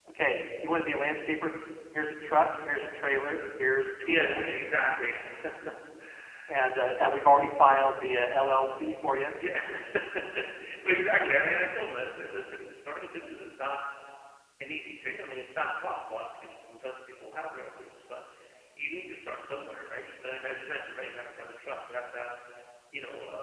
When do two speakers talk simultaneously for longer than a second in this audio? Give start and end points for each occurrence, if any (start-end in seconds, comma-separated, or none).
none